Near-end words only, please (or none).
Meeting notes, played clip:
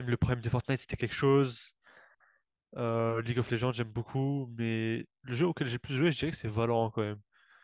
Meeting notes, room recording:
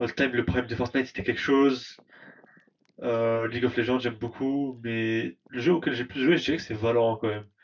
none